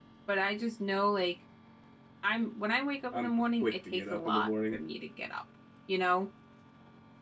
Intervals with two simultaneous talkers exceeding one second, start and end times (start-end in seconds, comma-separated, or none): 3.1-4.8